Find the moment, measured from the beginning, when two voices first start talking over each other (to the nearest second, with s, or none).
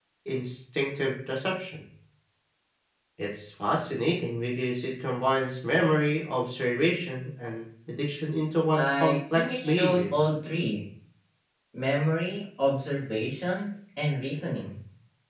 9 s